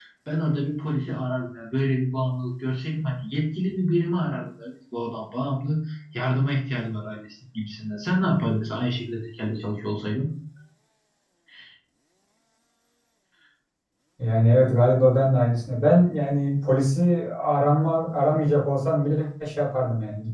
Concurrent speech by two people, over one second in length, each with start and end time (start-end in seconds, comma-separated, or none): none